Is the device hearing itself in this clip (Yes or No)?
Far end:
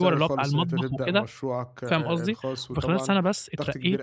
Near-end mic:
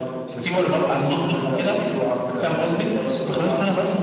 Yes